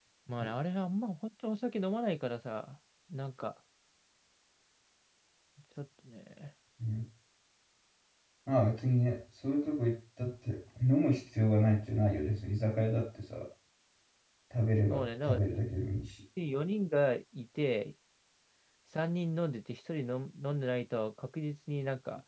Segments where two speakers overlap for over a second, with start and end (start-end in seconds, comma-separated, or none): none